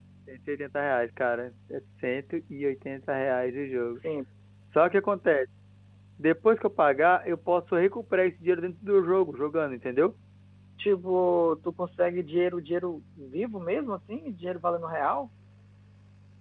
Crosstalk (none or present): none